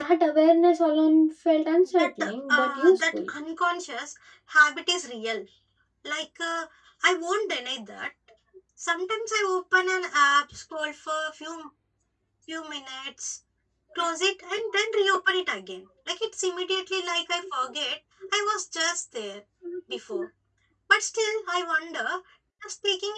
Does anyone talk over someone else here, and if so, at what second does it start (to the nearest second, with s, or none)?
2 s